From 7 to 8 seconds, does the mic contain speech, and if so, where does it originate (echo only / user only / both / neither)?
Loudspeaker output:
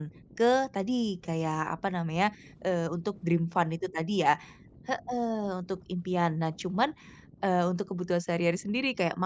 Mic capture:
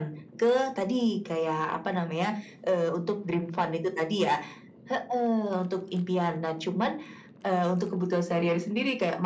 echo only